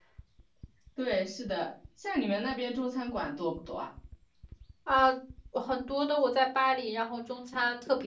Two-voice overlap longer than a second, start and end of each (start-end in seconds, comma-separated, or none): none